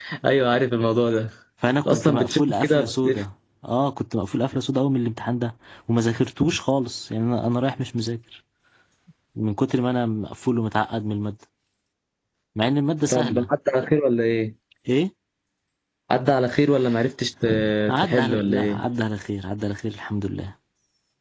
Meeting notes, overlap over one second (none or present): present